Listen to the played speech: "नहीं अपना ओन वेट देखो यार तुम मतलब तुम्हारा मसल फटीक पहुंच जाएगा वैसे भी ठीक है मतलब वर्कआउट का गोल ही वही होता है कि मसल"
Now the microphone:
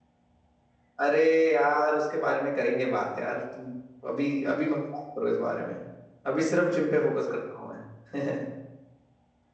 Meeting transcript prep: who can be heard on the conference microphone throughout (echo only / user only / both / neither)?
user only